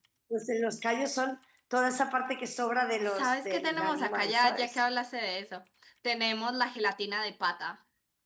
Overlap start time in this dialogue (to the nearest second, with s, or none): 3 s